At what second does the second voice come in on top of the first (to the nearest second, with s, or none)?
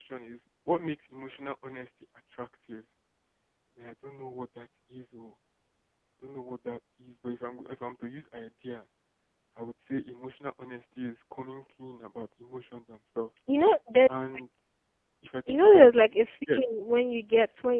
15 s